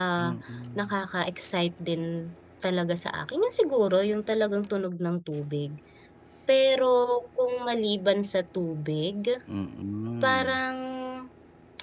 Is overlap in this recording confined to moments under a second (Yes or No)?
Yes